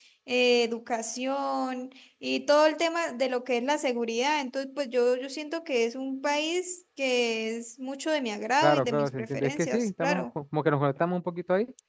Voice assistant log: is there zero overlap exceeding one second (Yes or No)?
No